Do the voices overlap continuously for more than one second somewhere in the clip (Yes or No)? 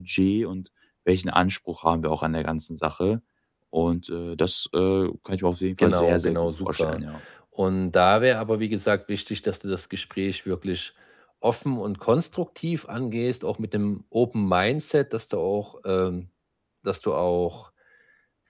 Yes